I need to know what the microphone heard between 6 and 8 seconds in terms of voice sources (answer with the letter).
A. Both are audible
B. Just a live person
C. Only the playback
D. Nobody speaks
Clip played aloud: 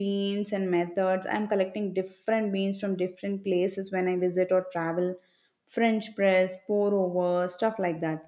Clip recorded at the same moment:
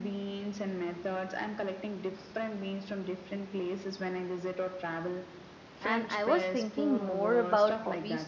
A